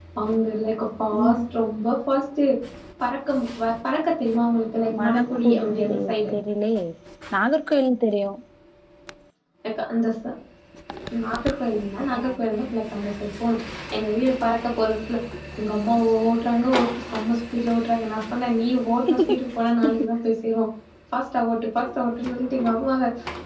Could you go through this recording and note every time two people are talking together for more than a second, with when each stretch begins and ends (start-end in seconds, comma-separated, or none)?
5.0-6.3